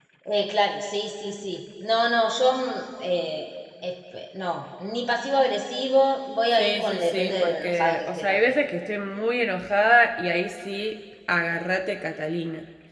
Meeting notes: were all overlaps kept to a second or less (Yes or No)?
No